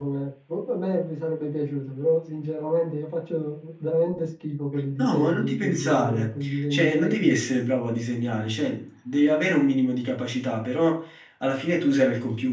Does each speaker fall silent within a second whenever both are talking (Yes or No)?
No